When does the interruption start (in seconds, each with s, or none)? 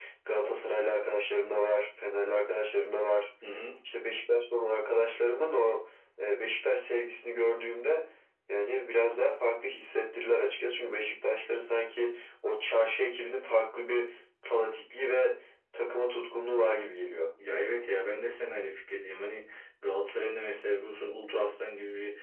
none